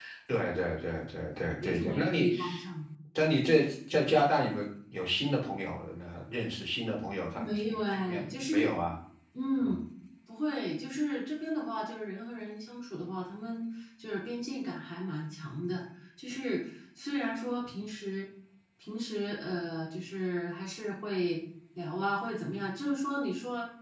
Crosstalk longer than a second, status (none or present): present